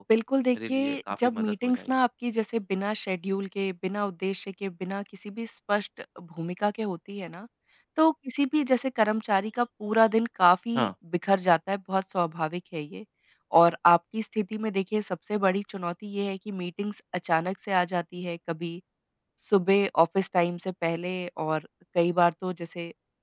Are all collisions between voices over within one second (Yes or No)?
No